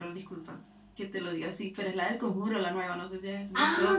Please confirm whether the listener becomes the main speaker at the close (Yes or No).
Yes